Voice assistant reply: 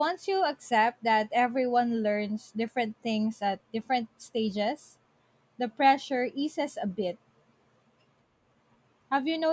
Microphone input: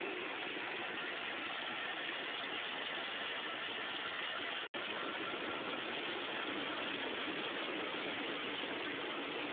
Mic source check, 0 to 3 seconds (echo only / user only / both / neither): neither